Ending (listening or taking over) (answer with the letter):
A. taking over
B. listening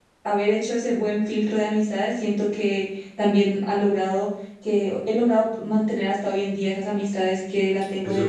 A